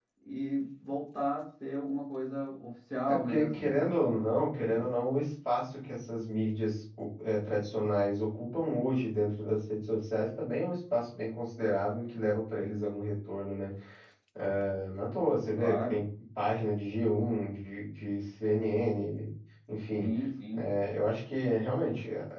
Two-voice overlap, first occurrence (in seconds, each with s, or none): 3.0 s